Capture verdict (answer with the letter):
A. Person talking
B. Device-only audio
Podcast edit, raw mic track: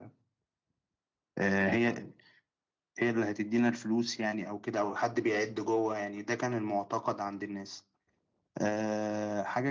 B